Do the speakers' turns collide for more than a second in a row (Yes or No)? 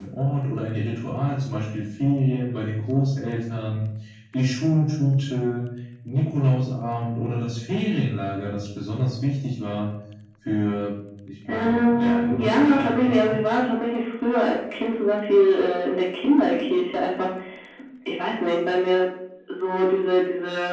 Yes